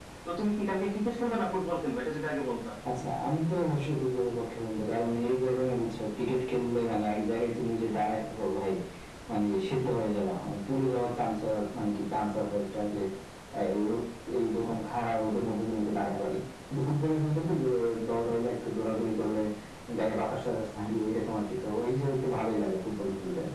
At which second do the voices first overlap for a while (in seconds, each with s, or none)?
none